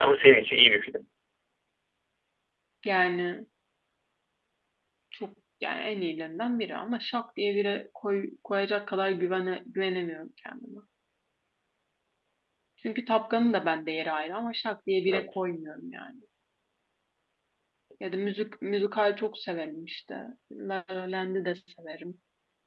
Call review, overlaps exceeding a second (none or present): none